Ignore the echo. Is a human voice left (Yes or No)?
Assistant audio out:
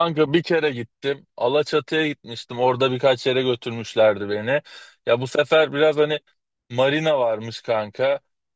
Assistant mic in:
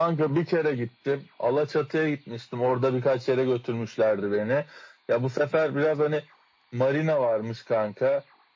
No